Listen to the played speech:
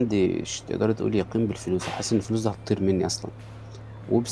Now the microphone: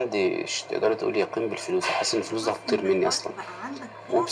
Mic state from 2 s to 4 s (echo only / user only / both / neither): both